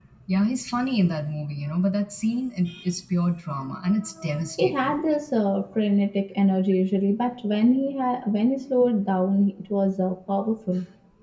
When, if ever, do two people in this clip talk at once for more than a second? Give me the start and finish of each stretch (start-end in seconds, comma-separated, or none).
none